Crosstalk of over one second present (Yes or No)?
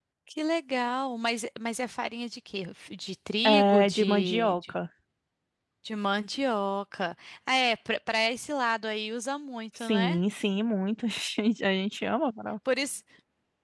Yes